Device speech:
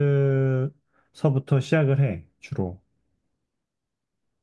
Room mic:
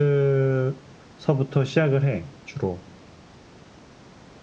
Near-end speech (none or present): none